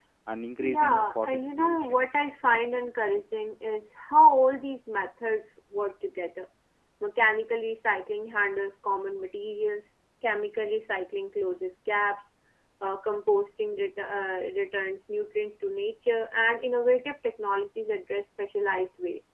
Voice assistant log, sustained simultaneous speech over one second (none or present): present